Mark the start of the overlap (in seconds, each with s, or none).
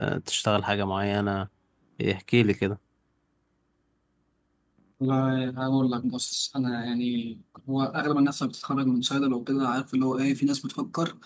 none